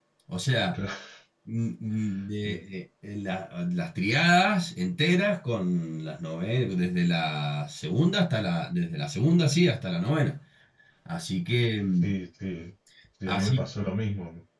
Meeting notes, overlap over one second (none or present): none